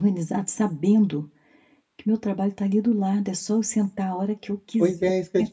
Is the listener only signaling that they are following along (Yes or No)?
No